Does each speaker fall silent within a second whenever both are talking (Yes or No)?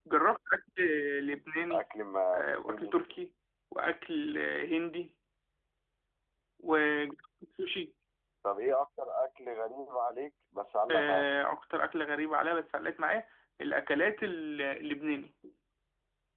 Yes